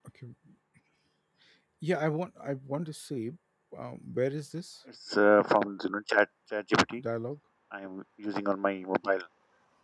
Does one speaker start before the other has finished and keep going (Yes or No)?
No